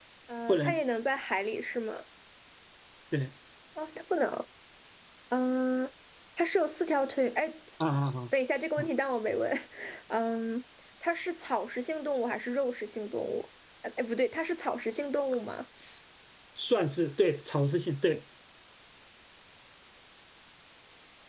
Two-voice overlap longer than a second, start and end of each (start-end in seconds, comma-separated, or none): none